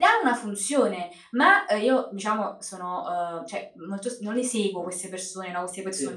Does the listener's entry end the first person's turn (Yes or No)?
No